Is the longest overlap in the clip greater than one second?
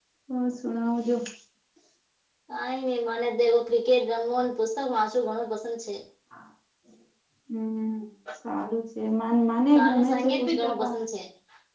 Yes, from 9.8 s

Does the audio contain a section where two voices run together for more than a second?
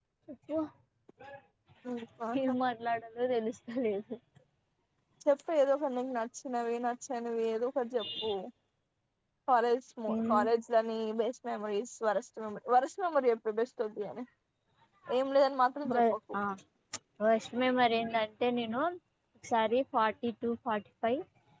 No

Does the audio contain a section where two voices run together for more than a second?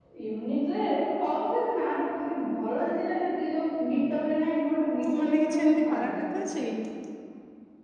Yes, from 5.0 s

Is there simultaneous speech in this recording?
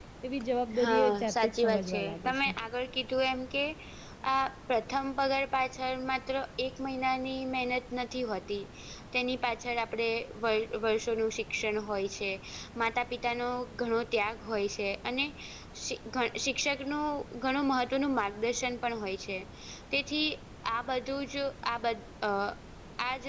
Yes, from 0.8 s

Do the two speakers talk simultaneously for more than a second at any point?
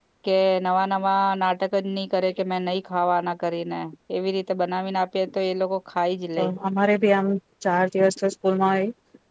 No

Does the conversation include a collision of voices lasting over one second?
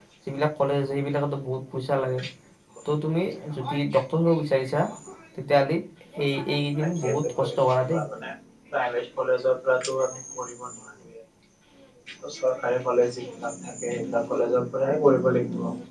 Yes, from 6.8 s

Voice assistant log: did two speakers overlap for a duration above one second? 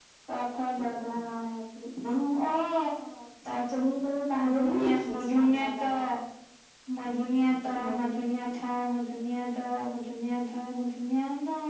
Yes, from 4.3 s

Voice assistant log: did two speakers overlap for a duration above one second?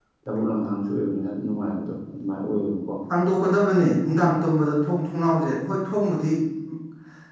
No

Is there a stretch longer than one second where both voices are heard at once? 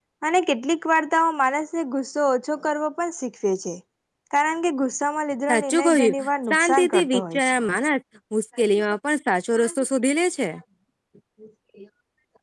Yes, from 5.5 s

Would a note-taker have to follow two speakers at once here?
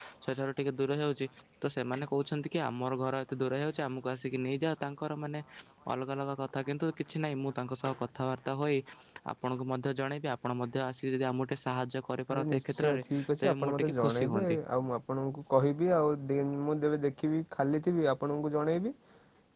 Yes, from 12.3 s

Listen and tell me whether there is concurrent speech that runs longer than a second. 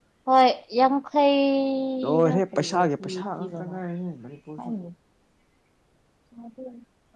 Yes, from 2.0 s

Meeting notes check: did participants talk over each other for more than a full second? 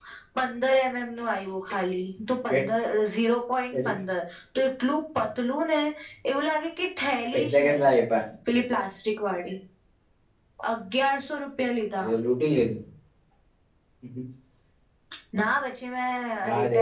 No

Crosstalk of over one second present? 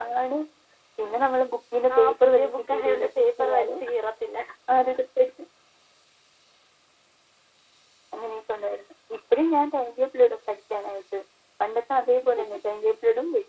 Yes, from 1.9 s

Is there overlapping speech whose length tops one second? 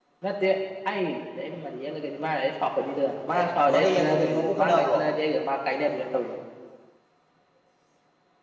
Yes, from 3.3 s

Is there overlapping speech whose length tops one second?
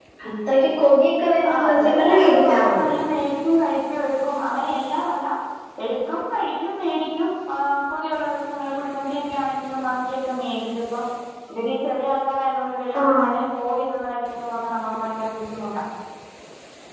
Yes, from 1.5 s

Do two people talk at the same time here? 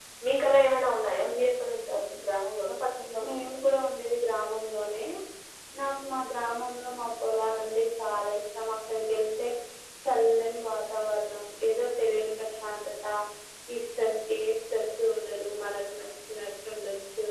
No

